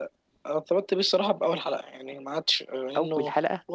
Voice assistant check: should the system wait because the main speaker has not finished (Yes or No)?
Yes